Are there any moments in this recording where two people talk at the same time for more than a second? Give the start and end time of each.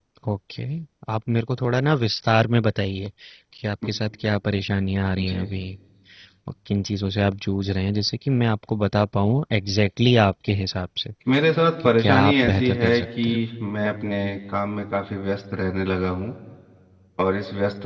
11.8-13.3

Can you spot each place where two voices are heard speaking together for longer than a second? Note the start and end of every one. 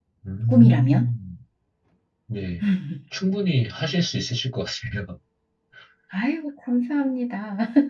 none

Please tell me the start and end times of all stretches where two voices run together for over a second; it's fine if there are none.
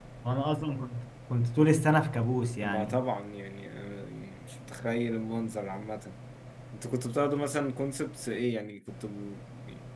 none

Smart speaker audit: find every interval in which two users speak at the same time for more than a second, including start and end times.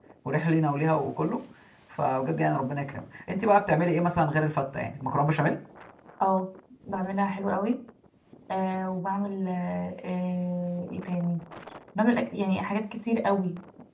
none

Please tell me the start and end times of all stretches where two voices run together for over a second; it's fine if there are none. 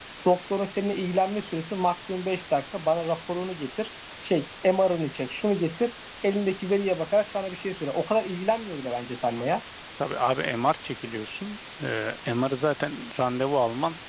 none

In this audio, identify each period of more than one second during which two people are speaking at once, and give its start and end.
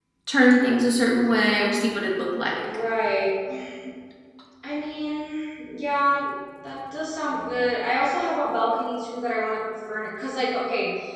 none

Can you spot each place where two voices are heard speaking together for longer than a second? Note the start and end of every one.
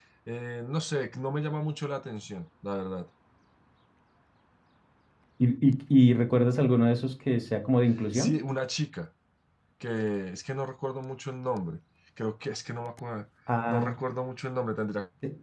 none

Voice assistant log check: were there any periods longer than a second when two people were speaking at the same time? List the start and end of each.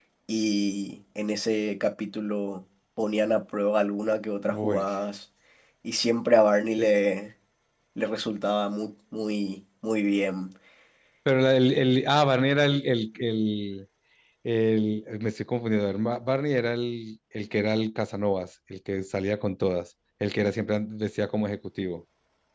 none

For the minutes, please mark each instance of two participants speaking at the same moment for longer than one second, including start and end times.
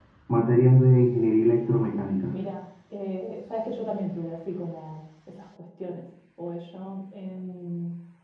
none

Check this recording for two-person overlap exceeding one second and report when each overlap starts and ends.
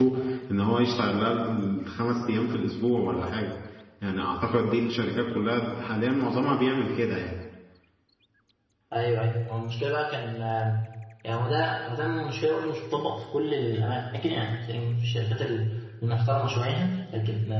none

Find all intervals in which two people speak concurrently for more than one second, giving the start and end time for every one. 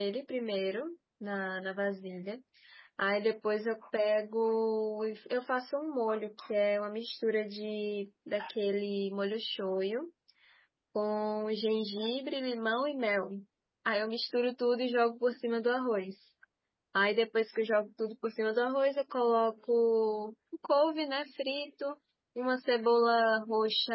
none

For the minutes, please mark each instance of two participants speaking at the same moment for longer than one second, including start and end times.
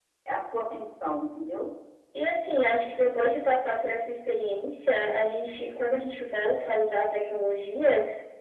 none

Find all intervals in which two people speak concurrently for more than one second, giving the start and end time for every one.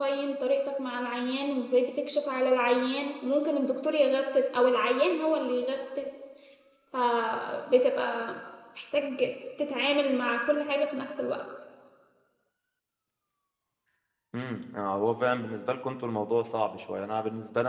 none

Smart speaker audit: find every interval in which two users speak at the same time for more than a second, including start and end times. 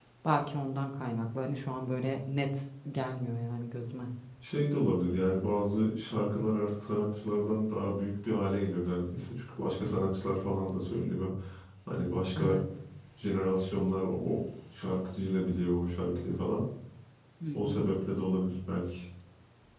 none

